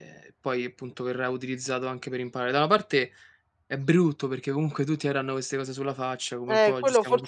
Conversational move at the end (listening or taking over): taking over